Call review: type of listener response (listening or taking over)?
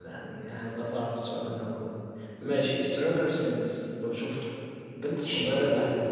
listening